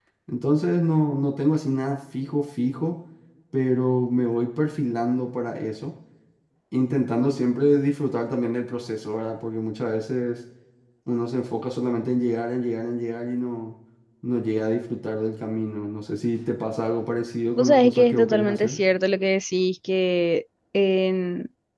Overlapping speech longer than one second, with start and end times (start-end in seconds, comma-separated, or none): 17.6-18.8